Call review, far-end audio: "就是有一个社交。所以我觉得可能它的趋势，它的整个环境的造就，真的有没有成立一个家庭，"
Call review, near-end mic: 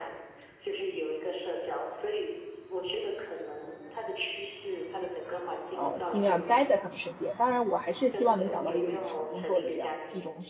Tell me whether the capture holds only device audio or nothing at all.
No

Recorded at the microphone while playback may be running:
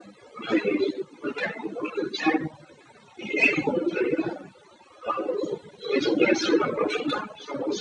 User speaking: No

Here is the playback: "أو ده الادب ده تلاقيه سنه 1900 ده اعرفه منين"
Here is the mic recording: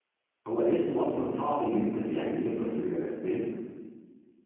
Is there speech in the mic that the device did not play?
Yes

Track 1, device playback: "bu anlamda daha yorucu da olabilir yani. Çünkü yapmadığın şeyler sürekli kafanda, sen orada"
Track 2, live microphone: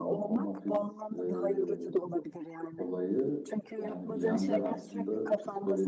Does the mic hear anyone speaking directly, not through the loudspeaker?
Yes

